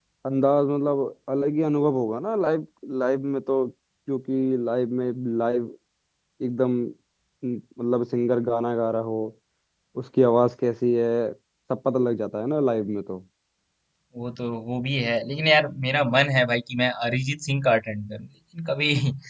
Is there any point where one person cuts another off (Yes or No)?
No